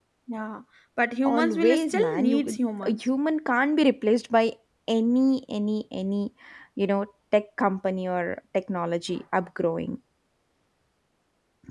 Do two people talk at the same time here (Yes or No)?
Yes